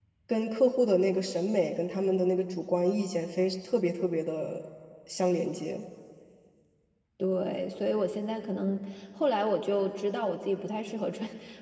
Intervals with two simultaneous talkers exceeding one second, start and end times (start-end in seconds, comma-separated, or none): none